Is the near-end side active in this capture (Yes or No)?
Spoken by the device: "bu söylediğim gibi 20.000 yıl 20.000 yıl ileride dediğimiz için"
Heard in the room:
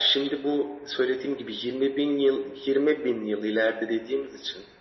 No